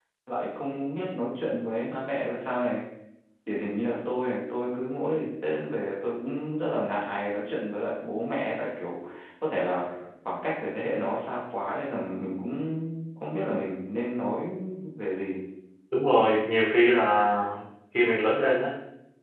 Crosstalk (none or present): none